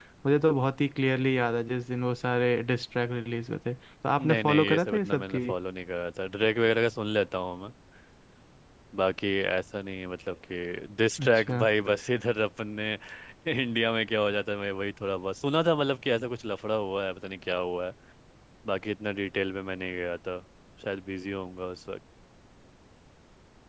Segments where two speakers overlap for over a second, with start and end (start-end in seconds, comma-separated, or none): 4.2-5.4